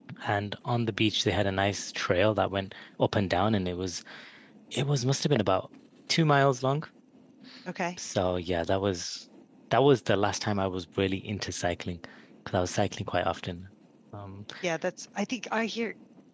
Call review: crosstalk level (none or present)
none